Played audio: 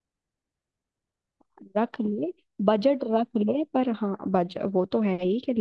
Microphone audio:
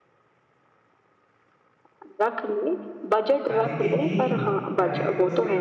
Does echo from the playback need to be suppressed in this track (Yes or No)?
Yes